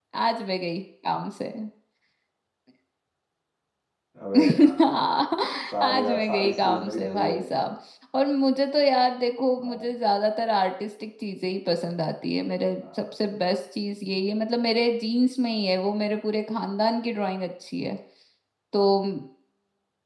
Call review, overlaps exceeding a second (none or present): present